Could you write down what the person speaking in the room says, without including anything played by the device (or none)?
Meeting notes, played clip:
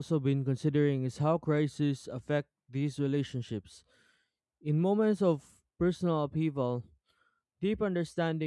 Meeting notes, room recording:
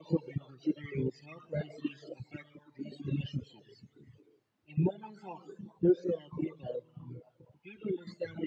none